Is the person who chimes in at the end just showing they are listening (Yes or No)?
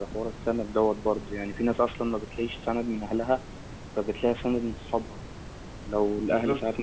Yes